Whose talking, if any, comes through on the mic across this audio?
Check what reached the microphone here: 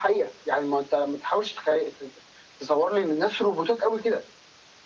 echo only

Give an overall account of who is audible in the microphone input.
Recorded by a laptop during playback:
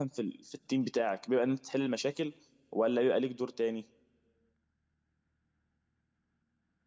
user only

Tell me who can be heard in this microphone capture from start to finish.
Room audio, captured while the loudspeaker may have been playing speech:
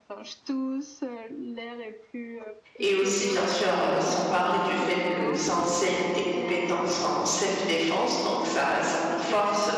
both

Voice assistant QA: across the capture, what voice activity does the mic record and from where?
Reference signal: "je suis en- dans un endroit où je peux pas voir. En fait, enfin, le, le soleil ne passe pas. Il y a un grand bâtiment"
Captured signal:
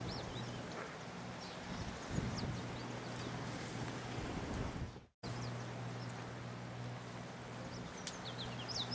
neither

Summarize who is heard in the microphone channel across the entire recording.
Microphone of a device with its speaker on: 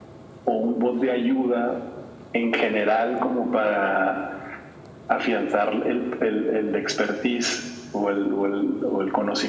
echo only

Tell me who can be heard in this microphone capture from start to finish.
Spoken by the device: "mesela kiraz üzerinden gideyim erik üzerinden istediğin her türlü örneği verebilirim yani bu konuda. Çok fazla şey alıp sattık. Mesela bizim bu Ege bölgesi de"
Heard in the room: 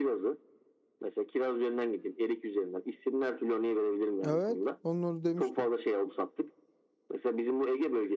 both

